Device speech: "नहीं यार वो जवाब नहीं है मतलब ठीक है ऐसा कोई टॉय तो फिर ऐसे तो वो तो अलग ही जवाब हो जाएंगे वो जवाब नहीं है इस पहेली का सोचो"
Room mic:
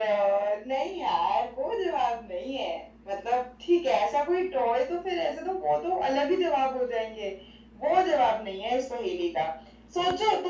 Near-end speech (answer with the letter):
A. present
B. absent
B